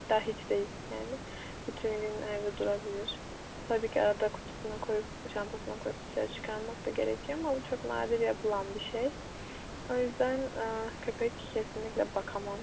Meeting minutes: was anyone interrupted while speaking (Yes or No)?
No